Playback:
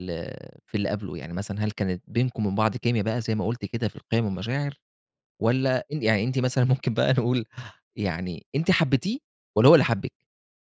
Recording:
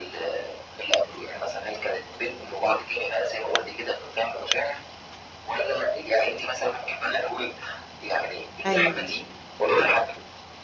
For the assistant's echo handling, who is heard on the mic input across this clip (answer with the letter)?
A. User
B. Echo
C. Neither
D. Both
D